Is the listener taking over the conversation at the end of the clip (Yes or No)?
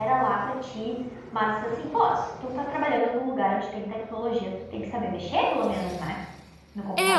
Yes